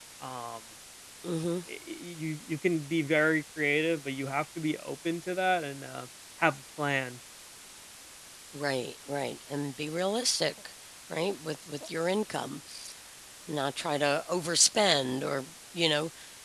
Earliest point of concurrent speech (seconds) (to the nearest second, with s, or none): none